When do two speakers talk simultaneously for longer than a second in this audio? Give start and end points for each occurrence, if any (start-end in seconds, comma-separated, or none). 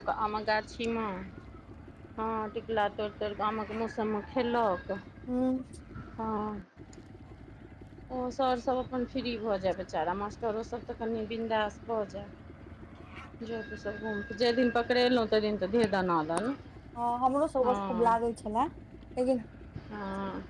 none